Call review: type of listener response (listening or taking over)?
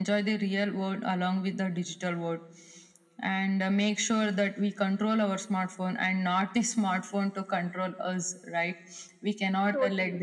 listening